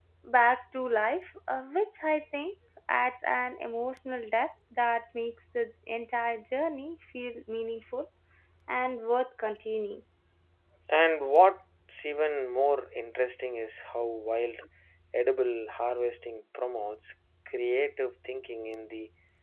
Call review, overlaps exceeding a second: none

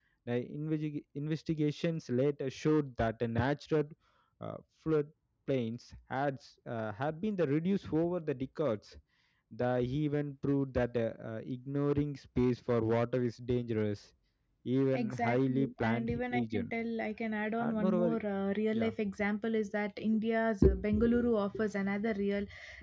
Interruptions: present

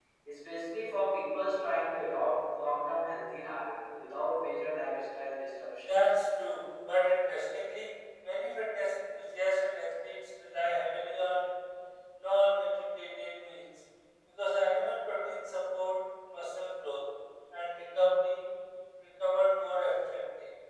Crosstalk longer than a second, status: none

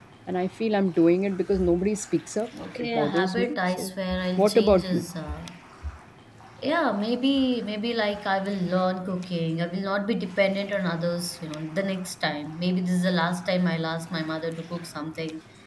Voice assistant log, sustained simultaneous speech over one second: present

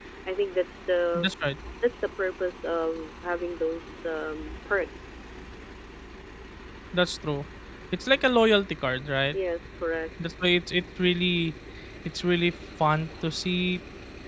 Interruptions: none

